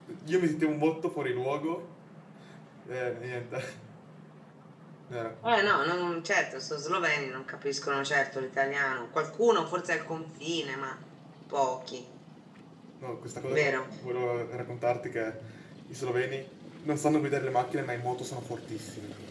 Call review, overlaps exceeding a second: none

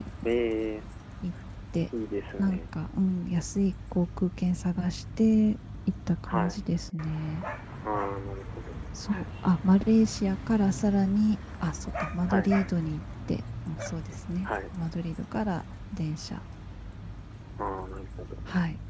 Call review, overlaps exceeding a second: none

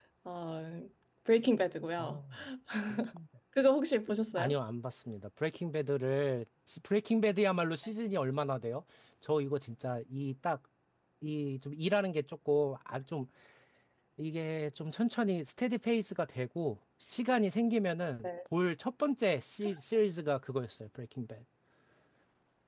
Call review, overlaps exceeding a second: none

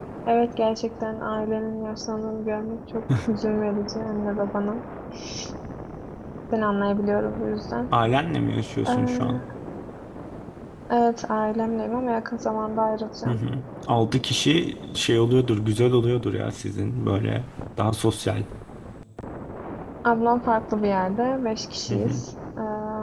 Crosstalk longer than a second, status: none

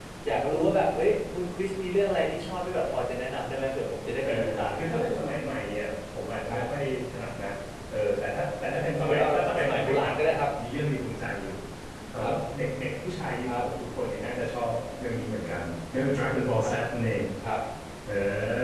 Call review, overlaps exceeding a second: present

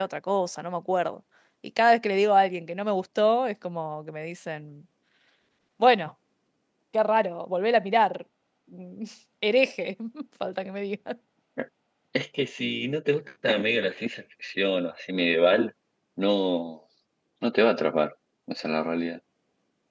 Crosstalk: none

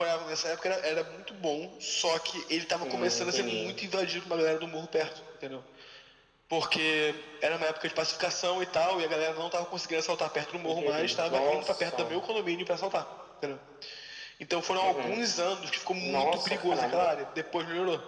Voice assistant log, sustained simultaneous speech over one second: present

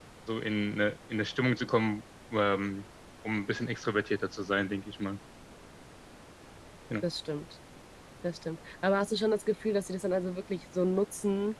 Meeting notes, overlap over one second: none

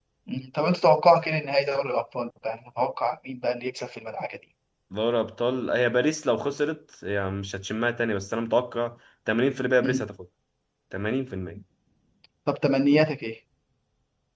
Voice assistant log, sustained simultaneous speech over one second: none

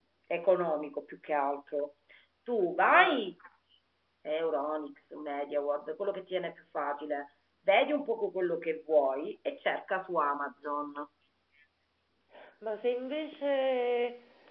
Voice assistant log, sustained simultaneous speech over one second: none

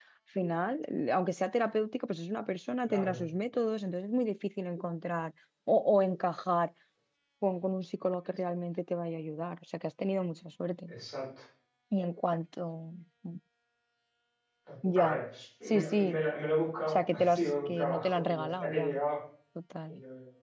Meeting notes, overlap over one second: present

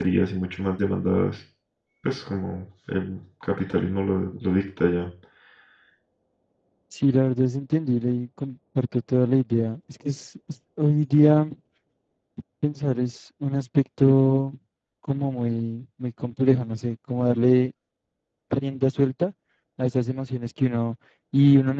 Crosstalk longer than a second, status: none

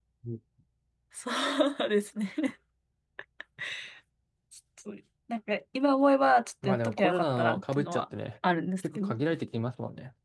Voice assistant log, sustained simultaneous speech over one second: present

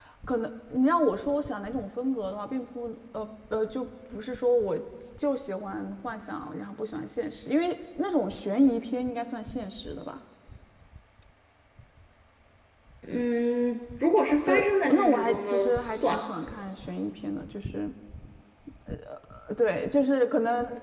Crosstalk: present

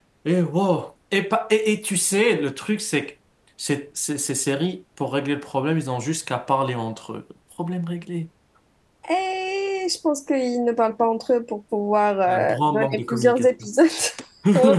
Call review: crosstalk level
present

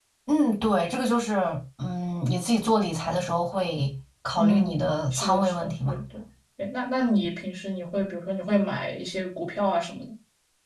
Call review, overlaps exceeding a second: present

